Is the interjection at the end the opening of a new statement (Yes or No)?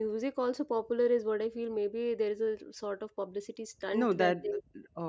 Yes